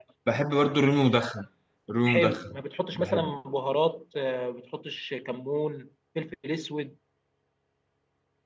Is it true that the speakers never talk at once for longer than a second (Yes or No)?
Yes